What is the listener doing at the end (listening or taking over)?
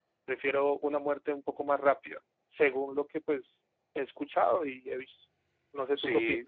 taking over